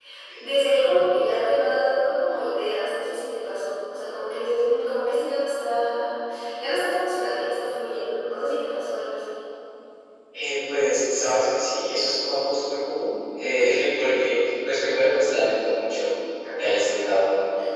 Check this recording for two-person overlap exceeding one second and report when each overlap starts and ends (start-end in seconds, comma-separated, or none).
none